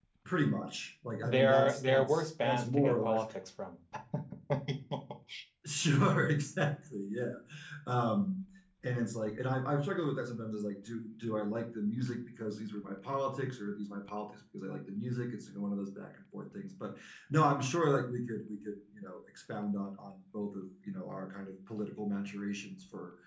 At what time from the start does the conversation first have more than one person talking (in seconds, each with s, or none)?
1.2 s